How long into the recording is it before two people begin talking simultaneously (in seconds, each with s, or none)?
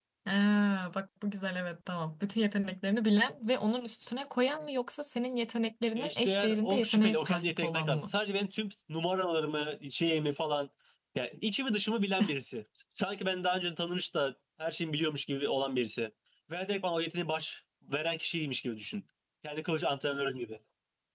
6.0 s